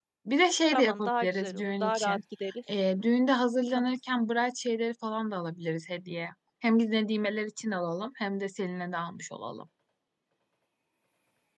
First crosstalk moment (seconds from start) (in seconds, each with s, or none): 0.7 s